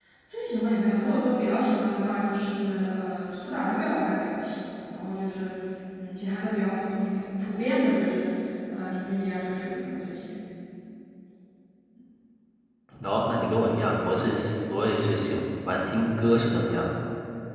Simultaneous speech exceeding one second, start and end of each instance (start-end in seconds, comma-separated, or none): none